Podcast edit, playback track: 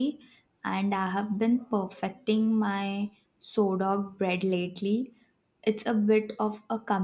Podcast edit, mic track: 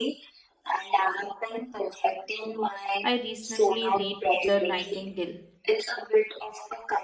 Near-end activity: present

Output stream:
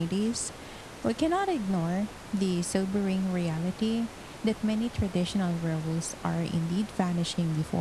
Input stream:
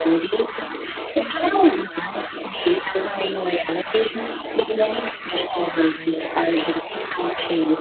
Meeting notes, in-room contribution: none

